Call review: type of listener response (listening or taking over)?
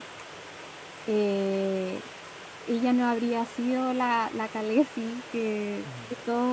listening